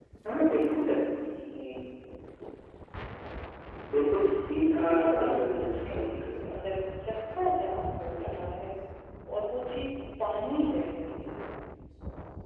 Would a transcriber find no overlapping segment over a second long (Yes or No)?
No